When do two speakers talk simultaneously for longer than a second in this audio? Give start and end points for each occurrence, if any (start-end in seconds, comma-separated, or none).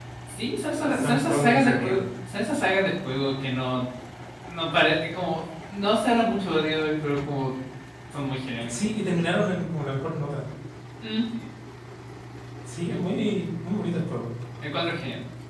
0.8-2.0